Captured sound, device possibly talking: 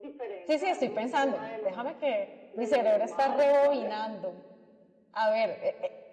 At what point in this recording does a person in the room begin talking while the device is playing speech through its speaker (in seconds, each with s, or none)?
0.4 s